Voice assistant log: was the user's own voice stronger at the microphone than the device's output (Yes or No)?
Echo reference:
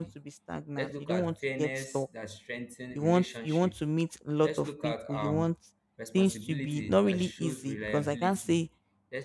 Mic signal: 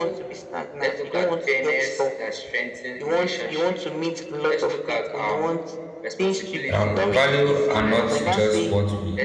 Yes